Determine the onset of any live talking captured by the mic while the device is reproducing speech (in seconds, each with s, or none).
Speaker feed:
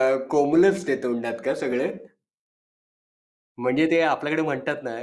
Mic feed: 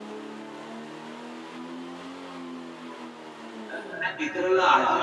3.7 s